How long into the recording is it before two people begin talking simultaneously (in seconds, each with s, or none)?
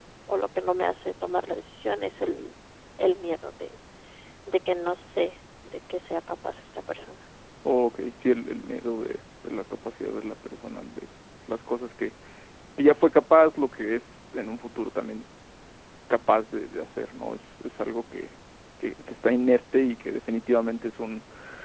none